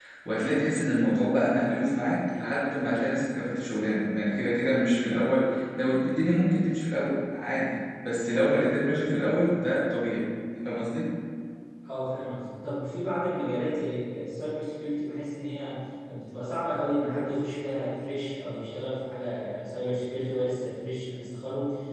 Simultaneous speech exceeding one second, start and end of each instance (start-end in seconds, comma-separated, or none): none